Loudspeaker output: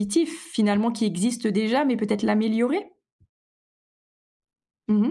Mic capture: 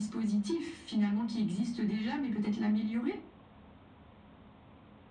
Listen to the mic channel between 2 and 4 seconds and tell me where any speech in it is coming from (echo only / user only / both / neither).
echo only